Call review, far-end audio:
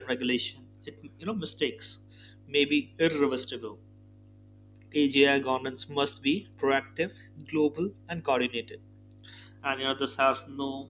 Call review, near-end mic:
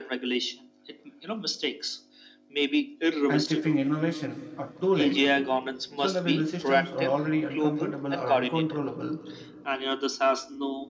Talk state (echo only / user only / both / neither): both